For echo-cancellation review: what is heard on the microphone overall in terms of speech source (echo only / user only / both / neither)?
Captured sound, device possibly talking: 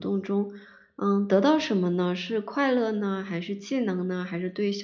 user only